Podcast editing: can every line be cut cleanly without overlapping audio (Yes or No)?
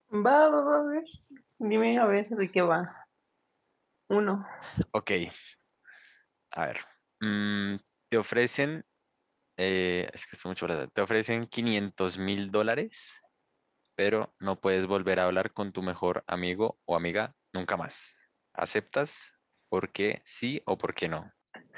Yes